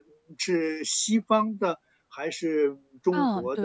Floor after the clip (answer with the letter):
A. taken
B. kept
A